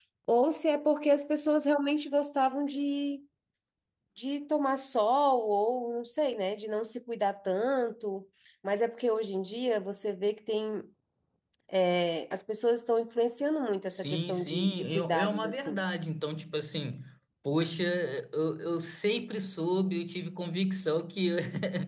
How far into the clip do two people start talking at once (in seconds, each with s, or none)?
13.9 s